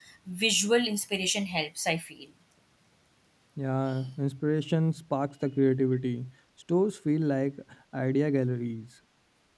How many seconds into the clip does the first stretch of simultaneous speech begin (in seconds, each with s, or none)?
none